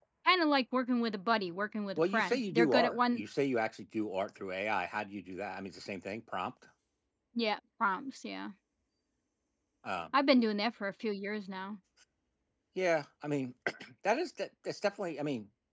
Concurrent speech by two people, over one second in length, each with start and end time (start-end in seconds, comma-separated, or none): 2.0-3.2